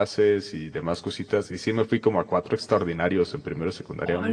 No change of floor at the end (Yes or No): Yes